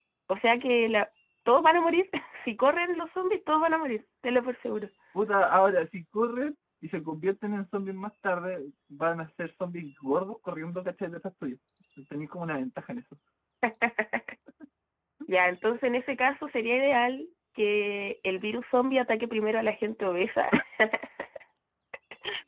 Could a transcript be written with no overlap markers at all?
Yes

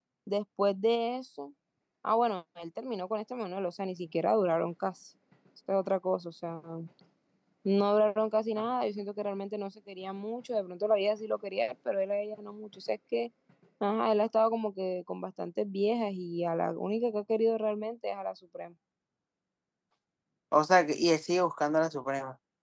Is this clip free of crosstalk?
Yes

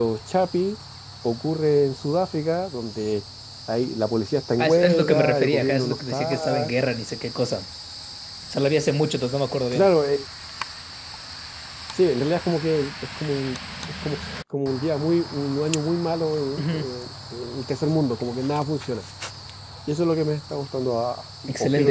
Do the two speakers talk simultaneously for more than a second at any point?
Yes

